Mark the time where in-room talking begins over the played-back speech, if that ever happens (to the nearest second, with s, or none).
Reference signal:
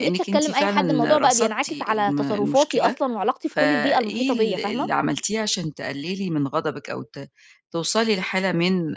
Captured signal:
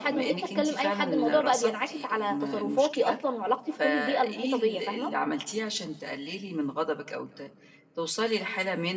none